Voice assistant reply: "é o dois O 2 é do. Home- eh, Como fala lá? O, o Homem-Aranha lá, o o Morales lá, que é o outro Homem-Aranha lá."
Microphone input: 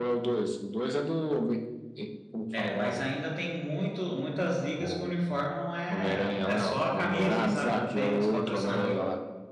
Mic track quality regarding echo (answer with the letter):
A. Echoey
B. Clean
A